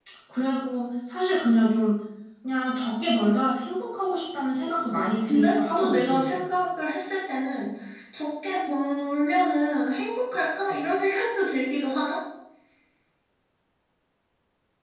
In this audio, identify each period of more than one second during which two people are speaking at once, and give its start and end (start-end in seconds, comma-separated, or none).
4.9-6.3